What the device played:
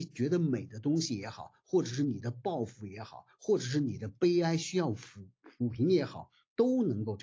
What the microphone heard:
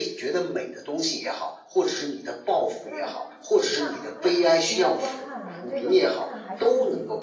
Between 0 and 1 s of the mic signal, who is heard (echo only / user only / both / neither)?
echo only